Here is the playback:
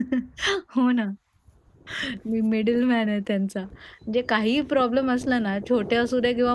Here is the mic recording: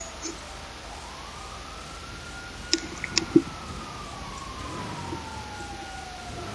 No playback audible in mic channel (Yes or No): Yes